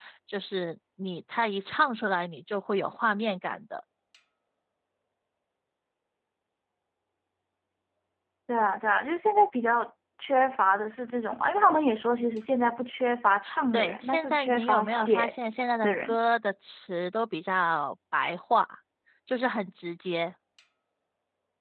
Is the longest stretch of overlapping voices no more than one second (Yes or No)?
No